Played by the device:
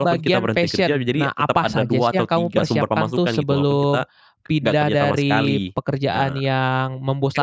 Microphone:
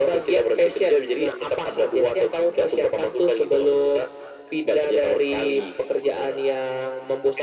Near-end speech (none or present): none